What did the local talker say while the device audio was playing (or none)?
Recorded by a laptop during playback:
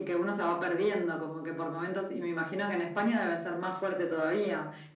none